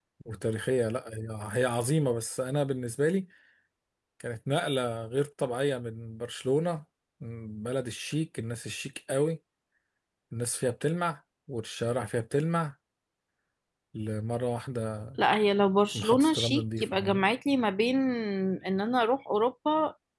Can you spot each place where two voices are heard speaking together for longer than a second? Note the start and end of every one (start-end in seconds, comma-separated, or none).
15.9-17.2